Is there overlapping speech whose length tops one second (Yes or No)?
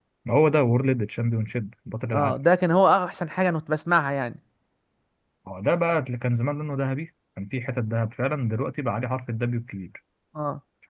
No